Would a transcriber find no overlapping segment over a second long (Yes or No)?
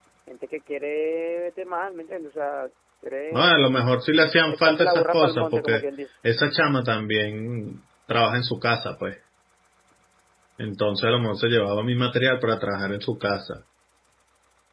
No